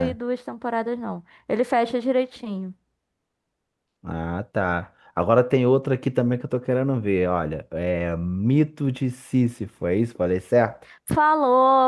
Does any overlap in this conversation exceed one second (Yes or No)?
No